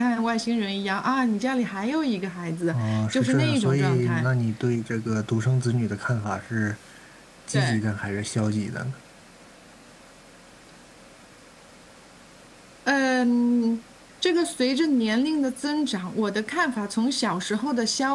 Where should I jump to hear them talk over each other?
2.7 s

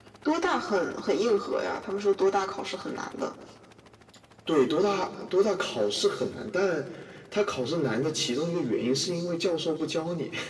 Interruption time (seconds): none

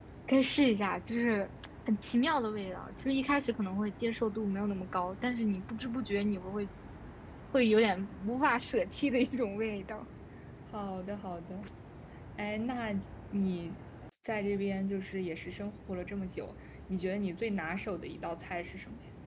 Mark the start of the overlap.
none

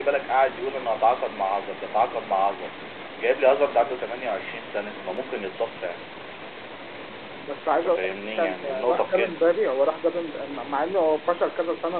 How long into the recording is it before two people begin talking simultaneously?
7.8 s

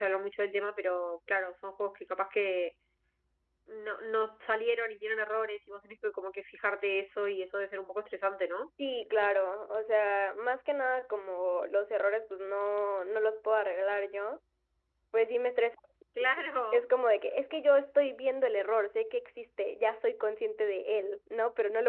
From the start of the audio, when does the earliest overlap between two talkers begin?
none

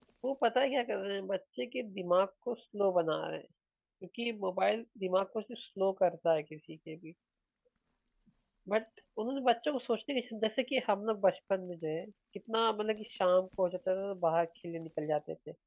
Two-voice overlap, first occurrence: none

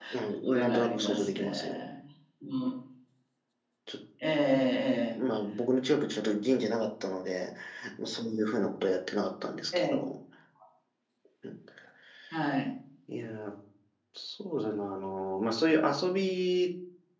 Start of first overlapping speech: 0.5 s

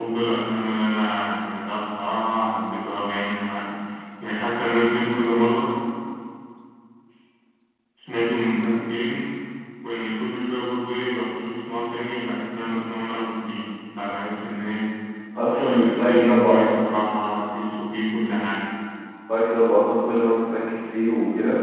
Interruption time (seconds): 15.5 s

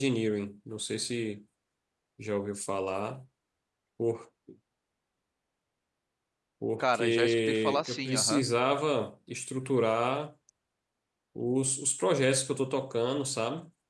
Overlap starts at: 6.8 s

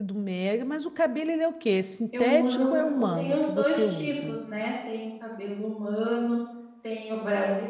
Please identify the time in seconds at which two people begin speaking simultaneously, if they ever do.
2.1 s

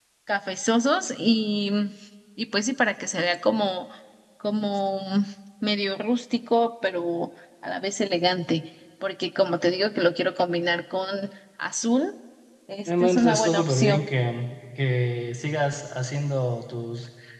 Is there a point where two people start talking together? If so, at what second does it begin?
12.9 s

